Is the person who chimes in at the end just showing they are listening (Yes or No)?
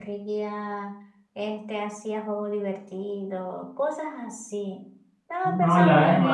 No